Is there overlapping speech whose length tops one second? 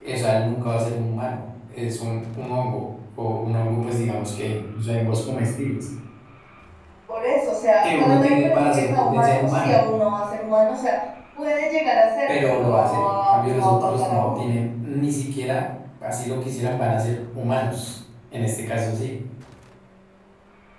Yes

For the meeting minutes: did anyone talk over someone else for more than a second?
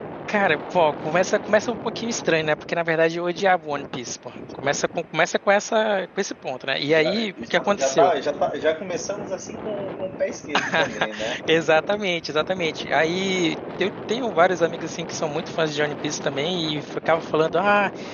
Yes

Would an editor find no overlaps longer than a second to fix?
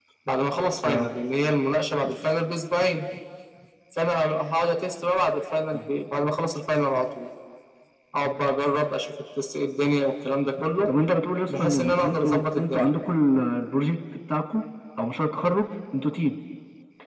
No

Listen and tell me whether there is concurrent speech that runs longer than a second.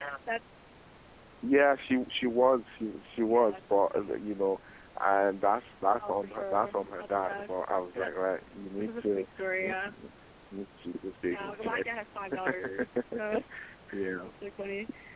Yes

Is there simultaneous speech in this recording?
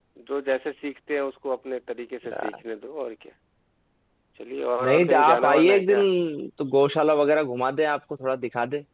Yes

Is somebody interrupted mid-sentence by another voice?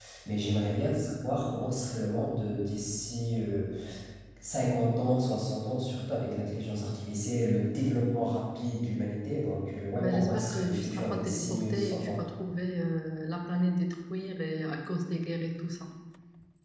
Yes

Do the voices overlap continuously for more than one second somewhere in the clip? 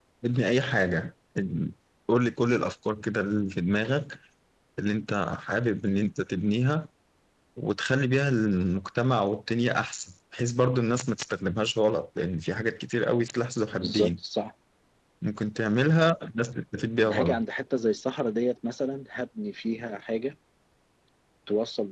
No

